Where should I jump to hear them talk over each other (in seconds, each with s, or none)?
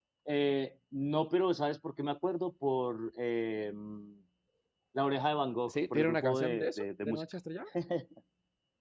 5.7 s